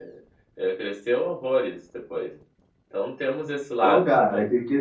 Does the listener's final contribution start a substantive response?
Yes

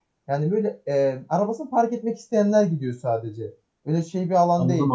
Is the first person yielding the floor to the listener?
Yes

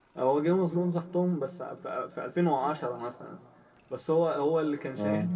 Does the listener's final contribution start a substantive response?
No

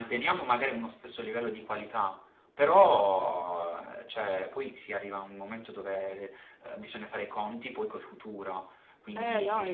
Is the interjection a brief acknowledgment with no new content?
No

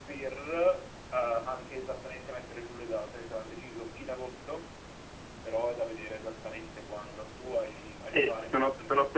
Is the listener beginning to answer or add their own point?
Yes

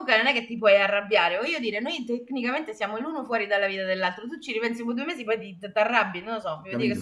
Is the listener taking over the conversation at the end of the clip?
Yes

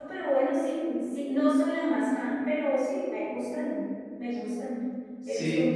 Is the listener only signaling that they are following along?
Yes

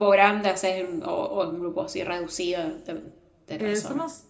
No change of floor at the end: No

